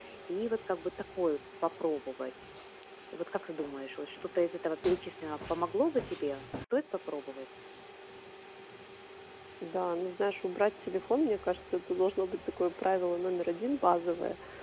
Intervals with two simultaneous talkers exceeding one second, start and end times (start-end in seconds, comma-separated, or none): none